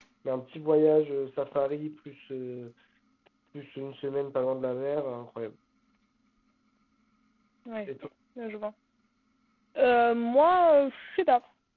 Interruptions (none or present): none